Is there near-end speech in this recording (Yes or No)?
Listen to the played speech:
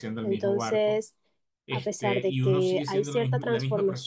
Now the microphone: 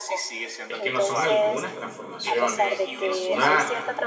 Yes